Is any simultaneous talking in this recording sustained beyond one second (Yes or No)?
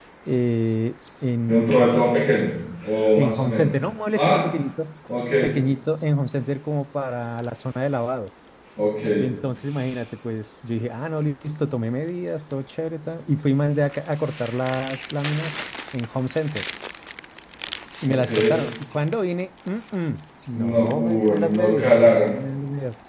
Yes